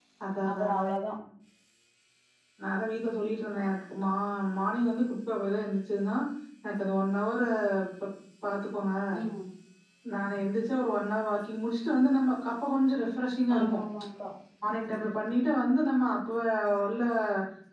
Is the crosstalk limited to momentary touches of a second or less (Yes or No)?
Yes